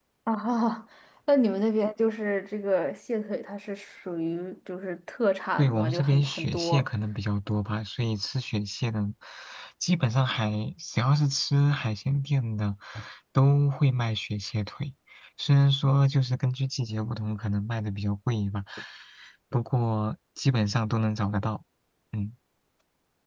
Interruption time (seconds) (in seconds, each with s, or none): 5.6 s